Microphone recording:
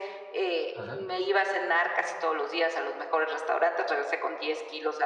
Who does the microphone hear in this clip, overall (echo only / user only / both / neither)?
both